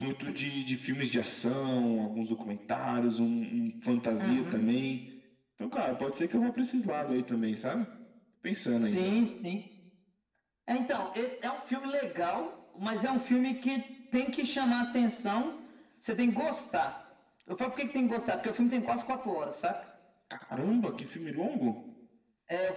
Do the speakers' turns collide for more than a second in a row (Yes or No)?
No